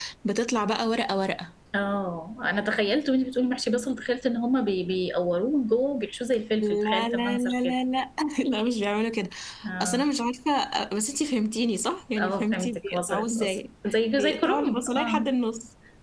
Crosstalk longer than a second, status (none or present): present